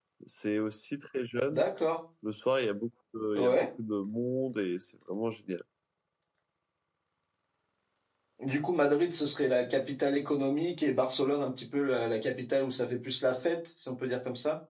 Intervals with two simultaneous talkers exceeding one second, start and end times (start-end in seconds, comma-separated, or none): none